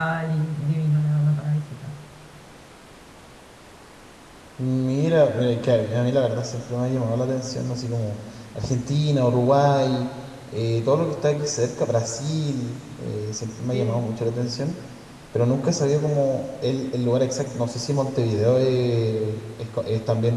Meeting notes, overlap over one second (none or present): none